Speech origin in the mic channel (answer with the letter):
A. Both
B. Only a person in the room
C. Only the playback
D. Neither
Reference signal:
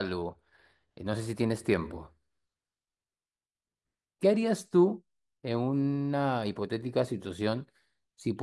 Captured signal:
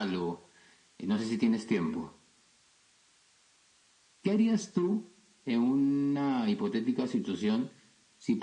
C